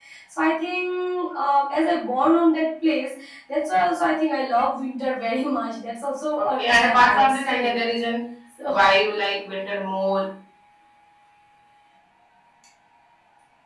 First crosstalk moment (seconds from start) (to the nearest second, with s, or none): 6 s